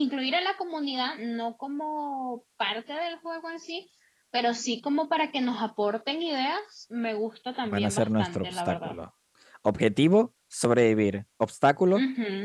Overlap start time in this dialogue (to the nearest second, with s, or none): 8 s